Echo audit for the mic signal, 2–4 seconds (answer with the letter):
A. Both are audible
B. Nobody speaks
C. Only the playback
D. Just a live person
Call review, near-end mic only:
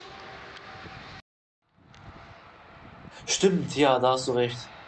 D